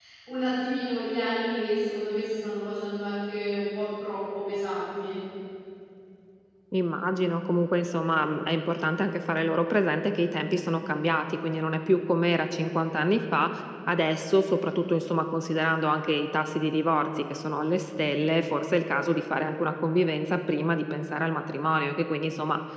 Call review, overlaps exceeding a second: none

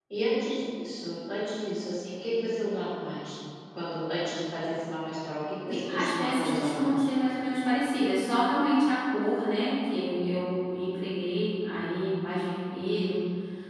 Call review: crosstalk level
present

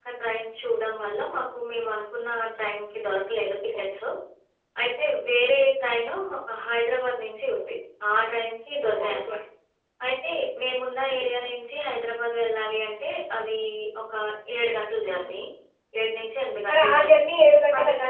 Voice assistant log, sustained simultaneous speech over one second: none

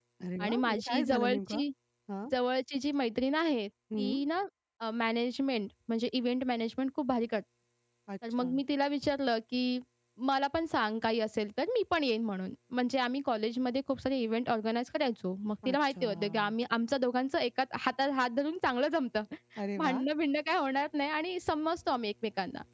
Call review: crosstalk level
present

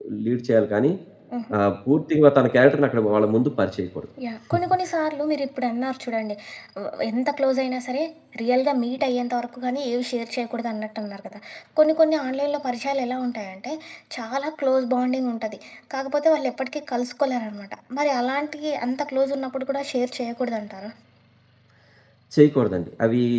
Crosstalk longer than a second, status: none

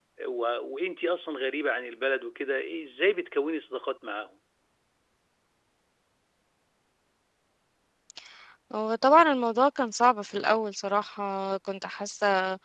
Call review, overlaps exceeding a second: none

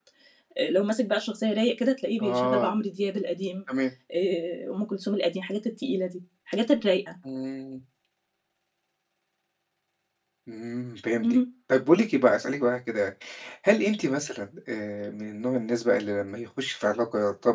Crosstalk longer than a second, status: none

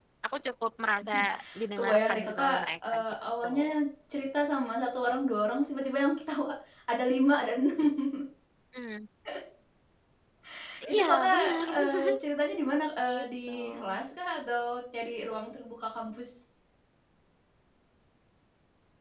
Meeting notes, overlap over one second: present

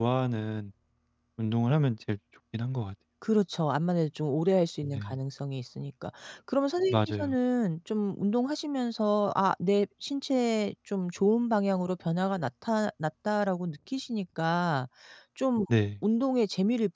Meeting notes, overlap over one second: none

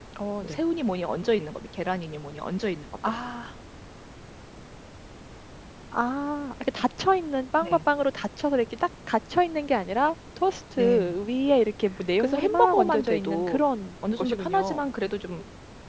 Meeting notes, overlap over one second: present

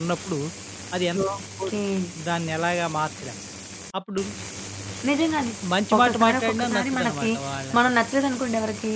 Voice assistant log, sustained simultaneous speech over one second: present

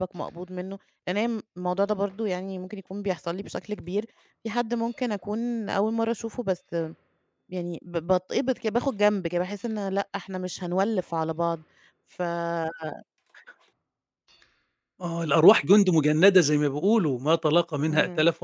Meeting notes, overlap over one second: none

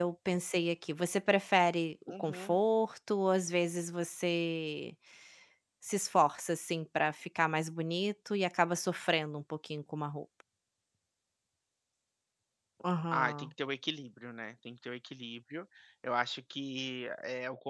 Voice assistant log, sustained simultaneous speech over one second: none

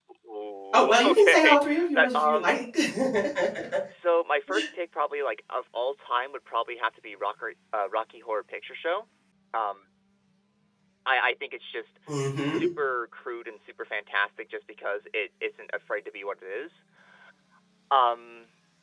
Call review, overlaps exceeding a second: present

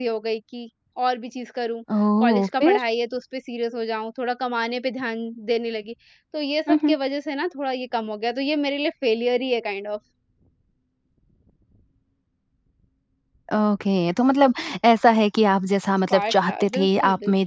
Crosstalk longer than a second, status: present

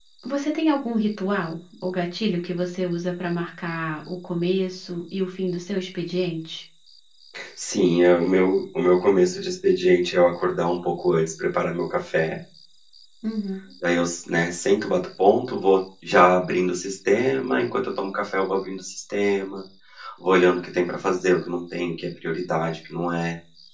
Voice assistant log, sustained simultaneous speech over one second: none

